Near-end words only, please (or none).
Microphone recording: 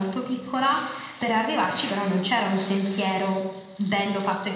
none